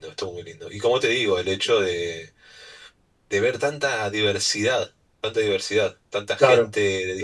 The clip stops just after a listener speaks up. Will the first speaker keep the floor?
No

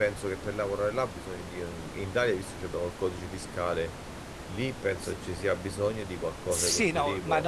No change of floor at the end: No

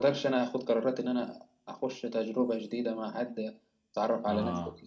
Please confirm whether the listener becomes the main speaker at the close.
No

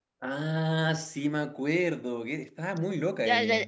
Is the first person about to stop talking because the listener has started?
Yes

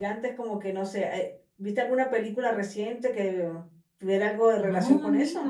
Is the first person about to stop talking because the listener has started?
Yes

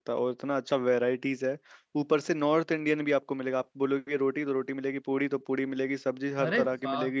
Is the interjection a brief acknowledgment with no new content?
Yes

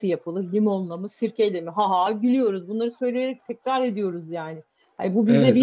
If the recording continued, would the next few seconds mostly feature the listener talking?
No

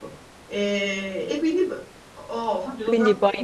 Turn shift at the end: Yes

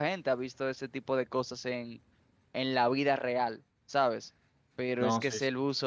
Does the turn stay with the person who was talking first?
Yes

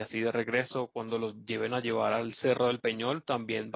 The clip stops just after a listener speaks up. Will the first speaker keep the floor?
Yes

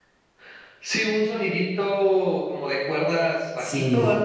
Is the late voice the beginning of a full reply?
Yes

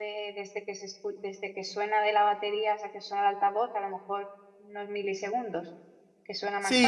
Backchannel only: No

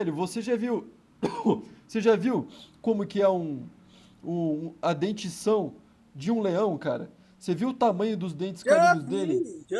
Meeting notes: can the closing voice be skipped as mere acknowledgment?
No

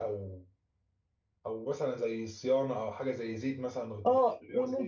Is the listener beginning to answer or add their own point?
Yes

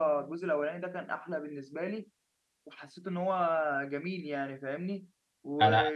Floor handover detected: No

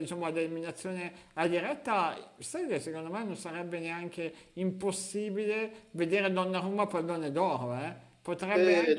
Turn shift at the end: Yes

